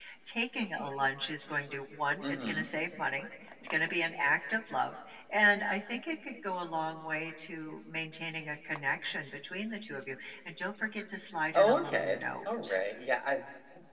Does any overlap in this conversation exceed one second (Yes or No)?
Yes